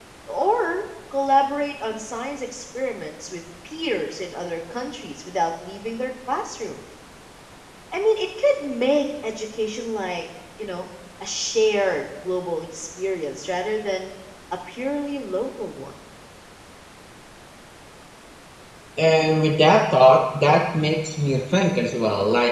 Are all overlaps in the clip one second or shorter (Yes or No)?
Yes